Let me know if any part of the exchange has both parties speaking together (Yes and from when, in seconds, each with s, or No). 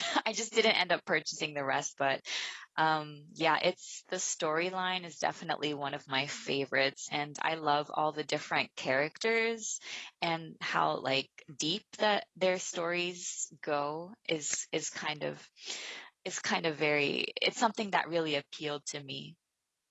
No